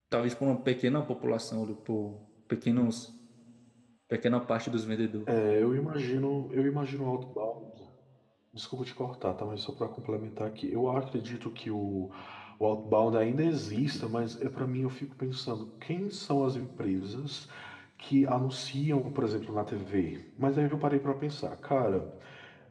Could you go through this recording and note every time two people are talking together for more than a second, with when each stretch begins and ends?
none

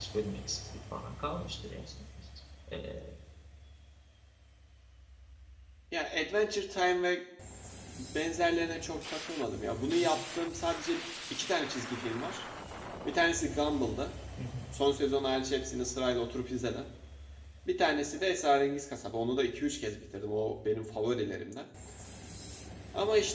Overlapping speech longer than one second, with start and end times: none

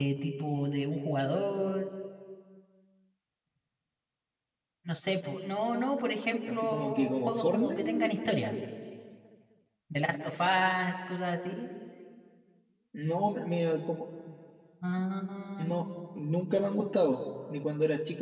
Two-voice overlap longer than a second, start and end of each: 6.5-8.3

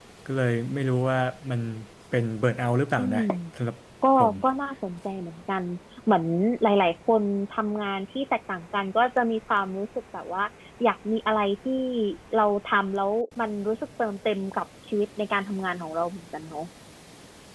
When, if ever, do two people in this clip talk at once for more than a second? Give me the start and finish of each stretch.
none

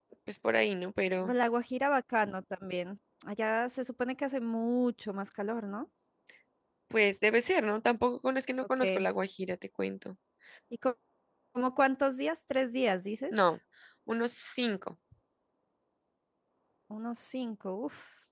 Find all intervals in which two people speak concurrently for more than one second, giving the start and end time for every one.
none

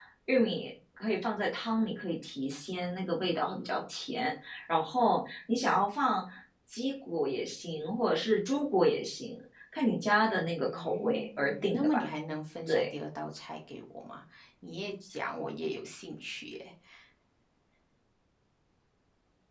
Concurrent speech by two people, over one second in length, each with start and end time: 10.6-12.0

